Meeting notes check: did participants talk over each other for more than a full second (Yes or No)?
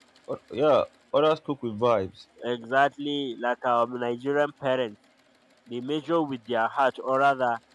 No